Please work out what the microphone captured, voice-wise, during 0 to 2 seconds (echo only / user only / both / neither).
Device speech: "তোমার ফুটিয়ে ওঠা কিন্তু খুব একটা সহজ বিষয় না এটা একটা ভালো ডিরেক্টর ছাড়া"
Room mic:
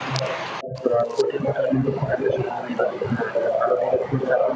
echo only